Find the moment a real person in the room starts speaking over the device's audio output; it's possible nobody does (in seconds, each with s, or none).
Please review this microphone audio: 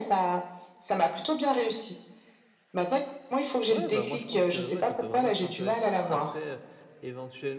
3.7 s